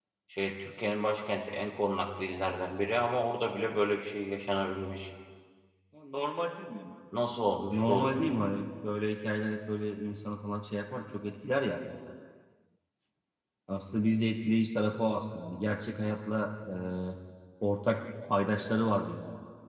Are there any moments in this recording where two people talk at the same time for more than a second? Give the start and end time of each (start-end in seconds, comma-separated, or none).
none